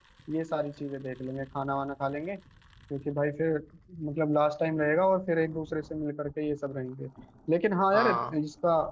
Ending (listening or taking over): listening